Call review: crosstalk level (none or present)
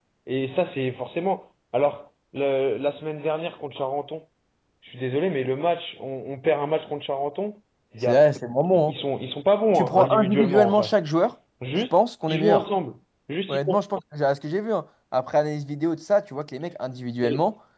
present